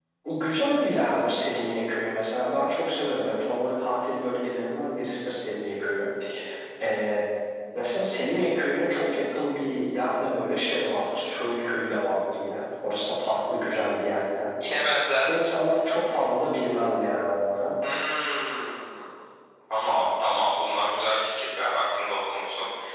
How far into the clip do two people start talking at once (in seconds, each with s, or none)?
none